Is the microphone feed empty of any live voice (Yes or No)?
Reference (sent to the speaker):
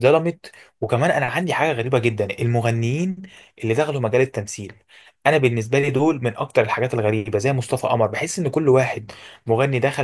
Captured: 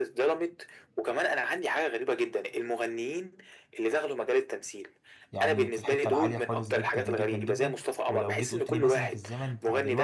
No